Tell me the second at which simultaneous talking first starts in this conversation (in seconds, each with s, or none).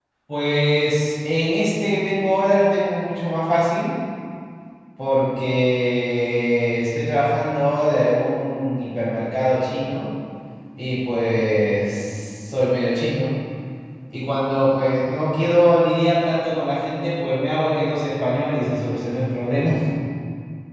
none